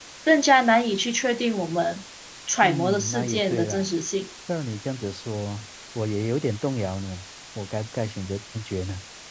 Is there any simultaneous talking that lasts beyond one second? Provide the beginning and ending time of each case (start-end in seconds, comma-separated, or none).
2.6-3.9